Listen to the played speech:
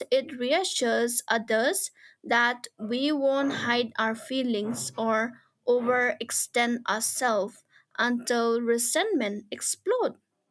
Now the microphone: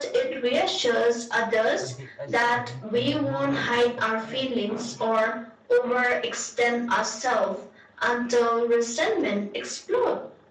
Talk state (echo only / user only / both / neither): both